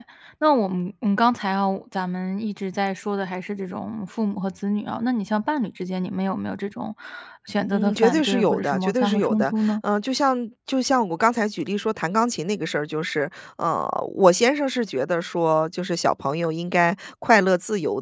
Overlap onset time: 7.7 s

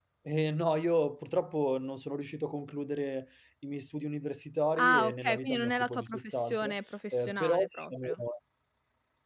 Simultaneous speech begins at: 4.8 s

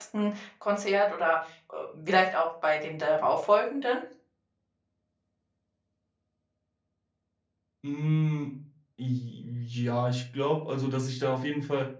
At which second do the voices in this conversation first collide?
none

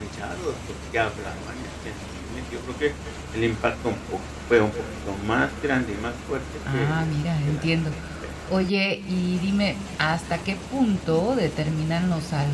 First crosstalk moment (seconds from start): 6.6 s

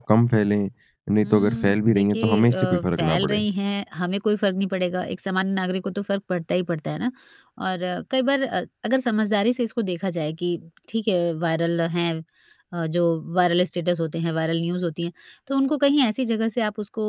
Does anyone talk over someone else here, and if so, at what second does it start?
1.2 s

